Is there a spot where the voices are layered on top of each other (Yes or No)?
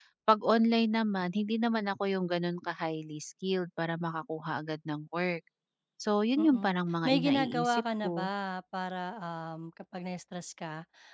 Yes